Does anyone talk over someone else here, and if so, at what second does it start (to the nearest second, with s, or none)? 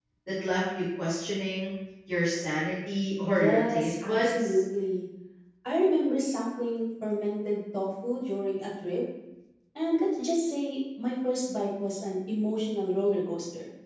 3 s